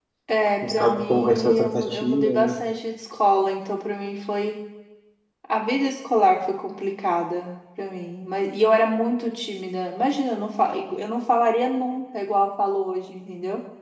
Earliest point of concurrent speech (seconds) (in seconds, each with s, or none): 0.7 s